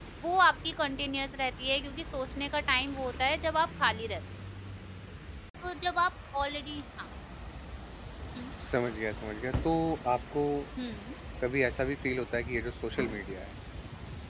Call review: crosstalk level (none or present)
none